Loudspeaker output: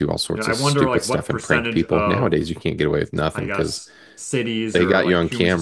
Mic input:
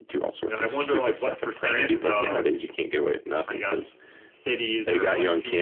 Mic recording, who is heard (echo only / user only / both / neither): both